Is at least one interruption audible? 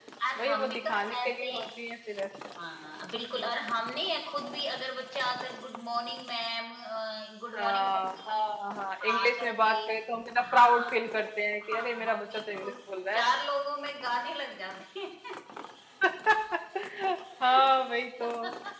Yes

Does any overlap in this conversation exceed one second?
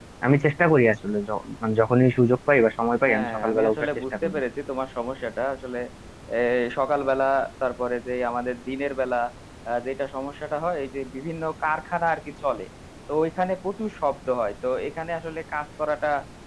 Yes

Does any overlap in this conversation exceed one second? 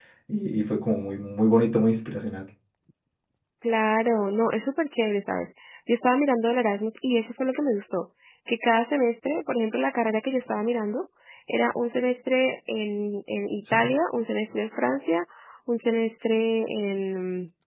No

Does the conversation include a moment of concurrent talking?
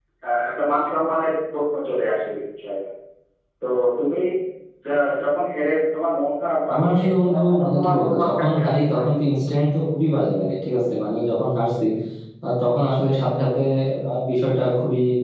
Yes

